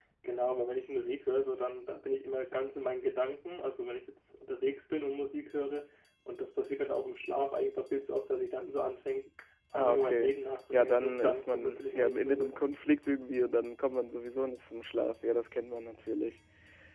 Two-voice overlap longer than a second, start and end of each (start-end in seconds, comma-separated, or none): 10.7-12.5